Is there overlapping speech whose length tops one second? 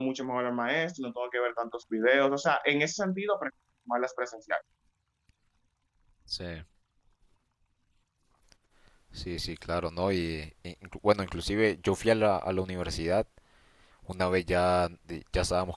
No

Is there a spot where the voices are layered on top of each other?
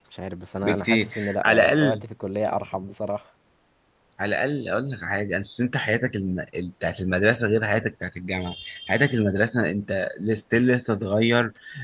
Yes, from 0.6 s

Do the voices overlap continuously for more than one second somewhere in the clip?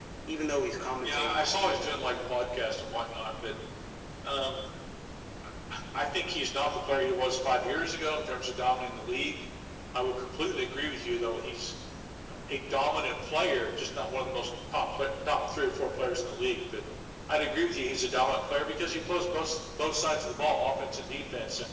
Yes, from 1.0 s

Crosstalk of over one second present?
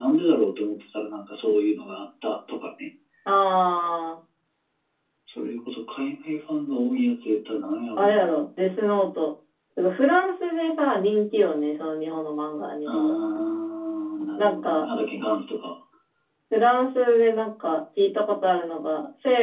No

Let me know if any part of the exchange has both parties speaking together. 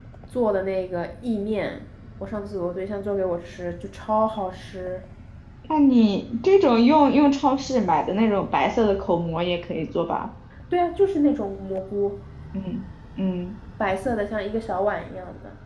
No

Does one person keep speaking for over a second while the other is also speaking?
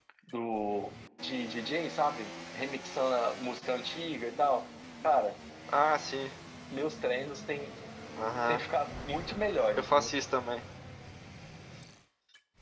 No

